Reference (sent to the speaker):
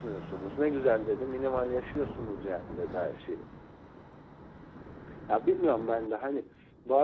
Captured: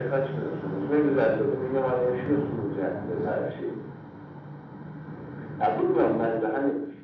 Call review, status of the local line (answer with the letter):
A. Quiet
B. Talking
A